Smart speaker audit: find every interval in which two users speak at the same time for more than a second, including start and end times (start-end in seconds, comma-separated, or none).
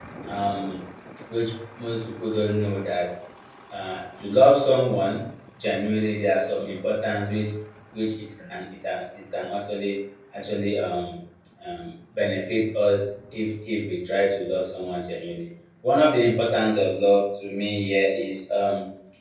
none